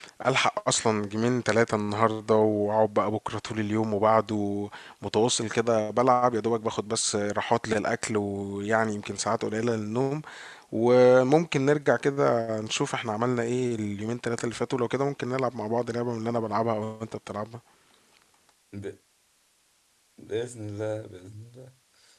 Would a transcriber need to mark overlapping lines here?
No

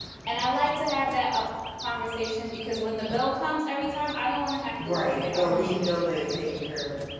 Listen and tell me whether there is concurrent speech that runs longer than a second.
Yes, from 4.8 s

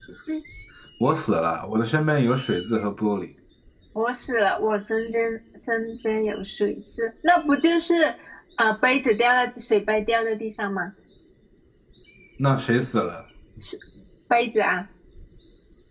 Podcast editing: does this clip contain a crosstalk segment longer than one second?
No

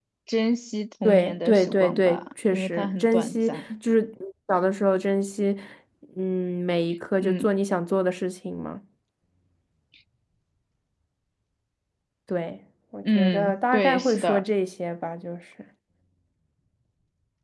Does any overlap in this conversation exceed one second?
Yes, from 1.0 s

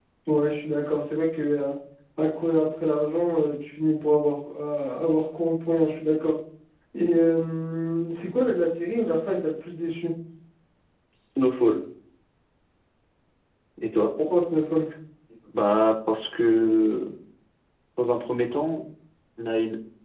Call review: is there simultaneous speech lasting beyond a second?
No

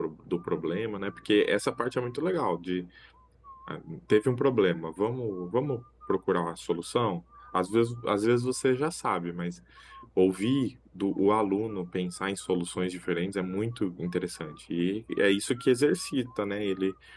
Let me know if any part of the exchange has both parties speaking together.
No

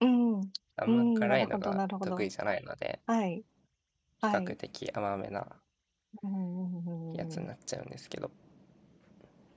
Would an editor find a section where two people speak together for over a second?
Yes, from 0.9 s

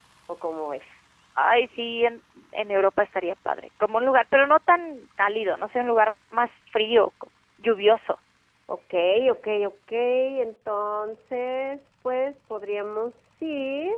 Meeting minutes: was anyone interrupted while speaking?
No

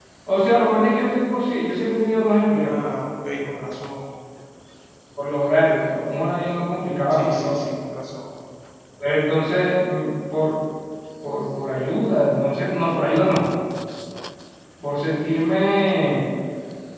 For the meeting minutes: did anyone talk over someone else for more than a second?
No

